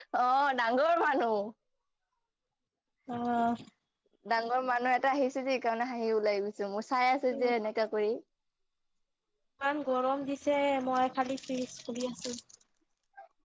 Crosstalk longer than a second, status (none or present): none